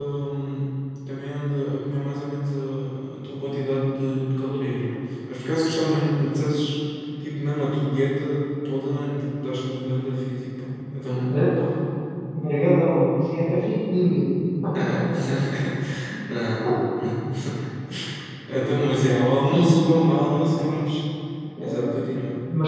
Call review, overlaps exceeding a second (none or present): none